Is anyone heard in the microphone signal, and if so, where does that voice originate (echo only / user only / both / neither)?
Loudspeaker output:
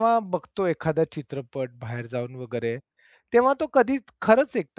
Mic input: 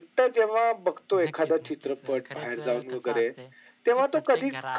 both